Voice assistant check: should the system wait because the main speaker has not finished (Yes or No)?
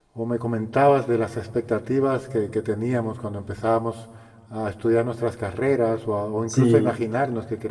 Yes